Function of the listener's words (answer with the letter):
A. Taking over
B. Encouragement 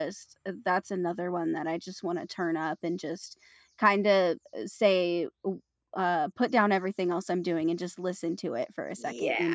A